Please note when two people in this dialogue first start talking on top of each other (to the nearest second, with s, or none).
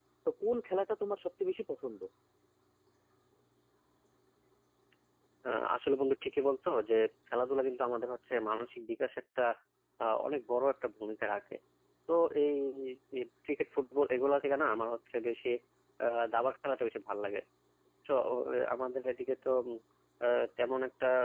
none